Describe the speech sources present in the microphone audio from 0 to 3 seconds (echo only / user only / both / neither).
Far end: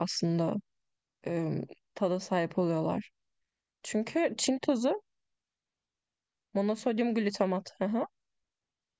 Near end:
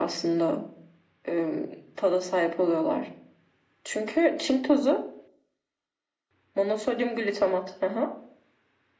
echo only